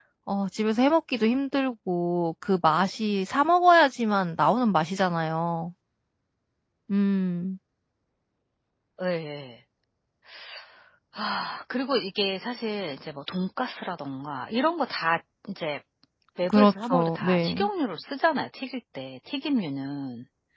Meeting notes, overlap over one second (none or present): present